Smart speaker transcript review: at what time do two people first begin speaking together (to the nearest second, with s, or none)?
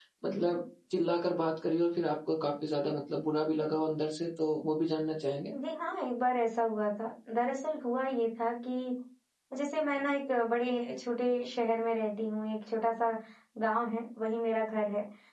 none